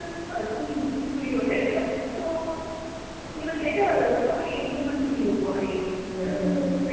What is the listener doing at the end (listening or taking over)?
taking over